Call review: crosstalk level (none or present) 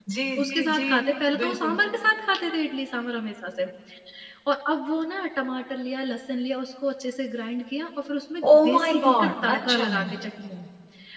present